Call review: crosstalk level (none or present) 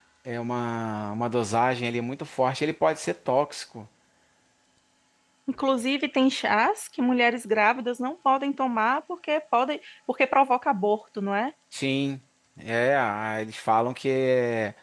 none